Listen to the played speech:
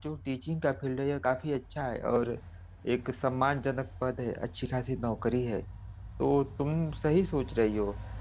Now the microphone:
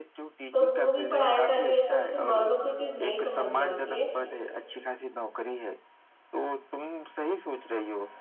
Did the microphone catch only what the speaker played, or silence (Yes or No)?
No